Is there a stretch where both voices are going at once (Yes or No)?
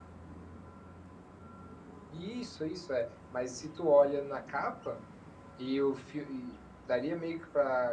No